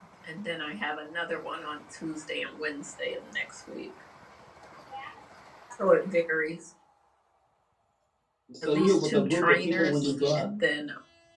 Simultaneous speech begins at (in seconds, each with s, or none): 8.6 s